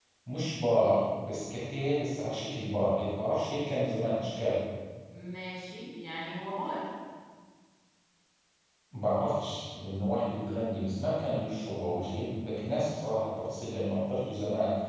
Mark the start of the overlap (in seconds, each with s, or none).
none